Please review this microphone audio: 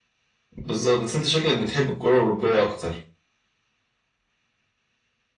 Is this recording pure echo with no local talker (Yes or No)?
No